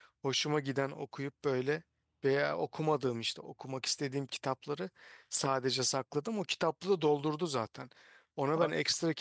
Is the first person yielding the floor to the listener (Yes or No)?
No